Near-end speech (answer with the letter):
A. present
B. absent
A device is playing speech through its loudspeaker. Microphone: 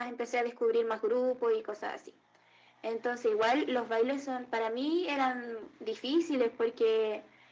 B